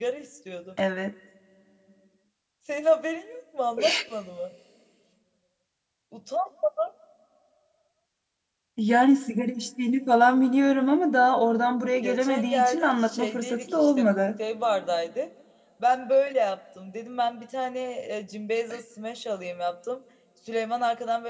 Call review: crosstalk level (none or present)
present